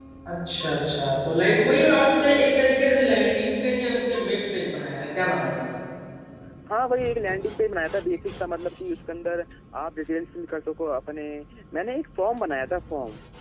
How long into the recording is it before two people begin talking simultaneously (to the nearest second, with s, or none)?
none